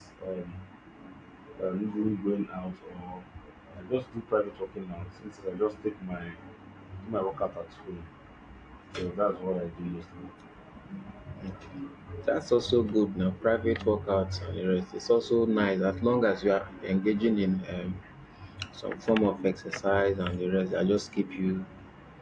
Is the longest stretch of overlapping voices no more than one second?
Yes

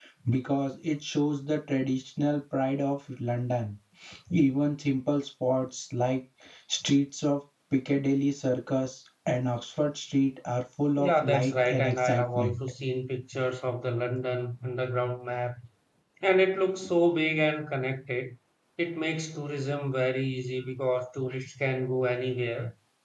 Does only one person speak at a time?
No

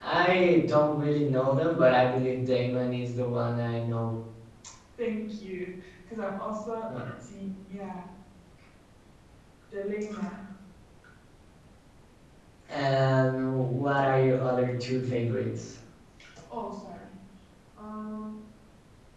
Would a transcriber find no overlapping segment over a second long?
Yes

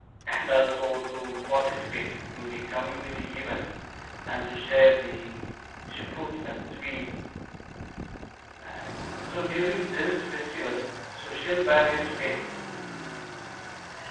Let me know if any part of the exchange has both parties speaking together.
No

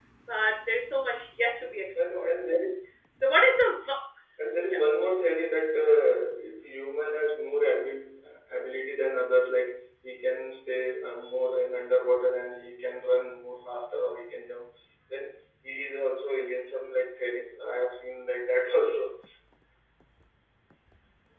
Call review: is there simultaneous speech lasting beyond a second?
No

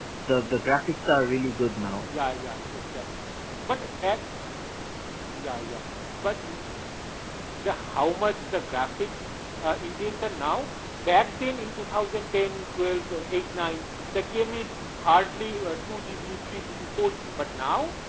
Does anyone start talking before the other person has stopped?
No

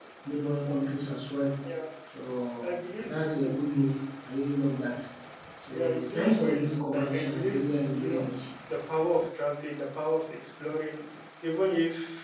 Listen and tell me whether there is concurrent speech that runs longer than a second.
Yes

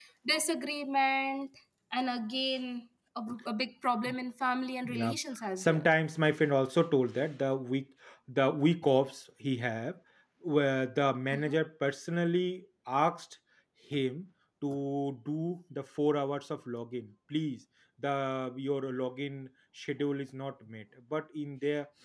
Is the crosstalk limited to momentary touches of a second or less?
Yes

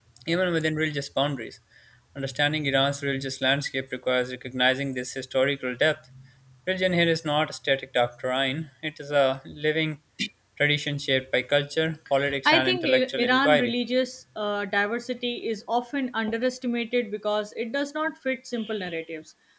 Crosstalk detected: Yes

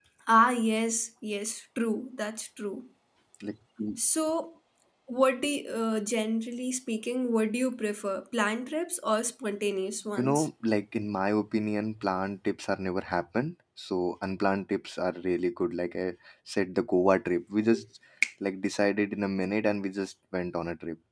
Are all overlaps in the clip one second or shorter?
Yes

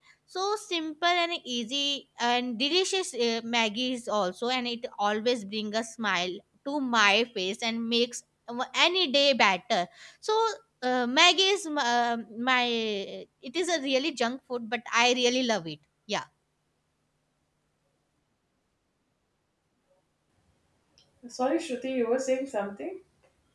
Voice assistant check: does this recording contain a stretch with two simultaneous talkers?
No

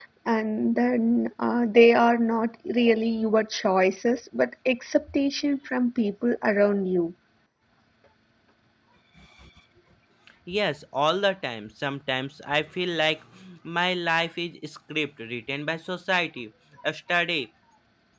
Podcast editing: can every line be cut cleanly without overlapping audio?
Yes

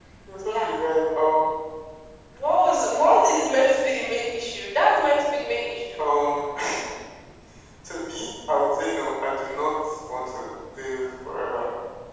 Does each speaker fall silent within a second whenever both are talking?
Yes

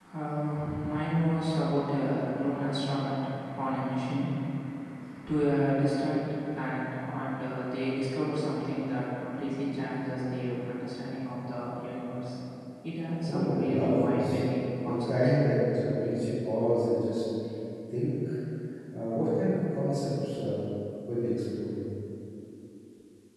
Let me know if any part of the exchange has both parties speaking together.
Yes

